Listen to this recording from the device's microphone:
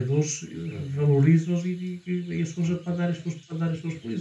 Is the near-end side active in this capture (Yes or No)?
No